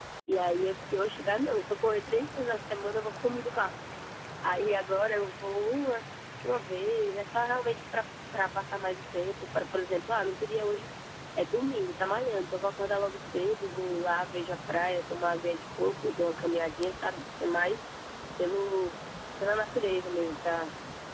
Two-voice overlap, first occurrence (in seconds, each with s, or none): none